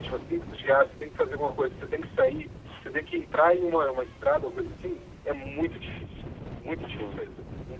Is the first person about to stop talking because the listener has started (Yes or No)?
No